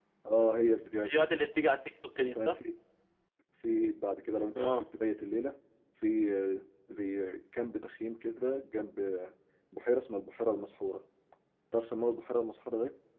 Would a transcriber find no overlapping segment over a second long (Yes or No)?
Yes